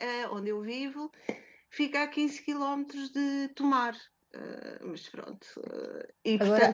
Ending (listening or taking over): listening